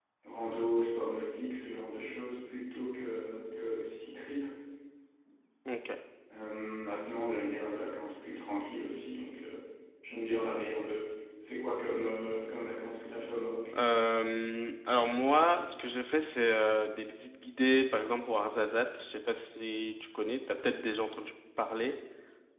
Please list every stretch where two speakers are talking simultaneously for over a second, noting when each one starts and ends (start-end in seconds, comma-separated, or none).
none